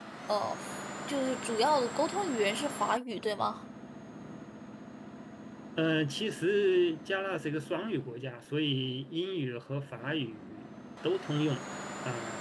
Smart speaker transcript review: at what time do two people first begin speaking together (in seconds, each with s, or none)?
none